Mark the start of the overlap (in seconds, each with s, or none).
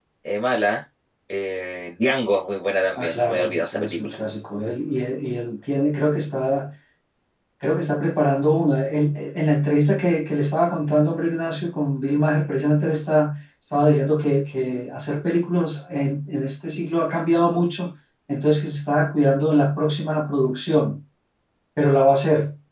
3.0 s